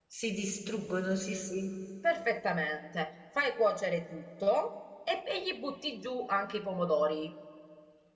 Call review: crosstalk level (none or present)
none